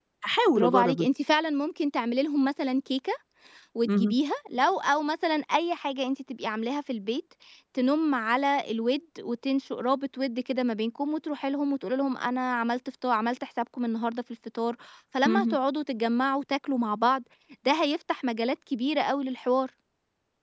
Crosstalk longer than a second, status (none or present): none